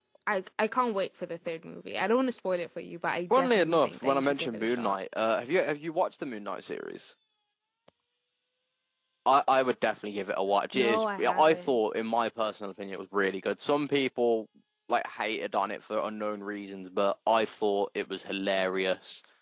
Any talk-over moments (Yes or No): Yes